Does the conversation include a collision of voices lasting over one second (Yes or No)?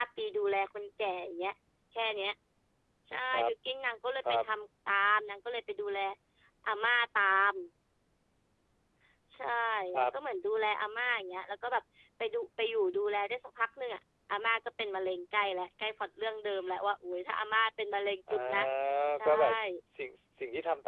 No